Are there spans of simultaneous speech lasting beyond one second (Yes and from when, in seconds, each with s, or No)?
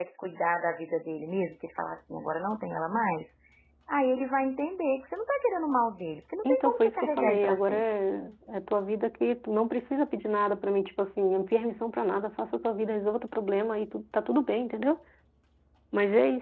Yes, from 6.4 s